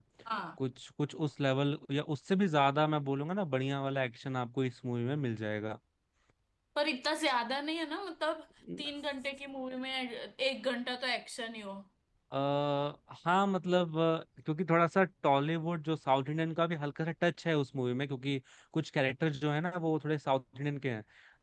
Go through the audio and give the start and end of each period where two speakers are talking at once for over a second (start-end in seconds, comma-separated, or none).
none